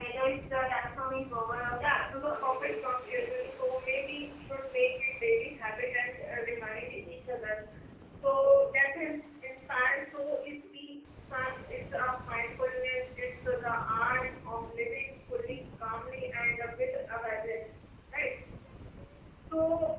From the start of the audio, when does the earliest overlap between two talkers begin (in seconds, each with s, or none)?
1.8 s